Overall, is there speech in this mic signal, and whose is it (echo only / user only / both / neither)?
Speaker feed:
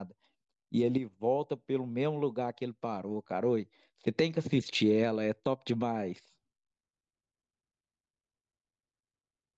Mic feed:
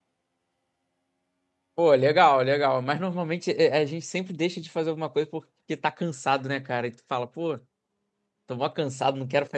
user only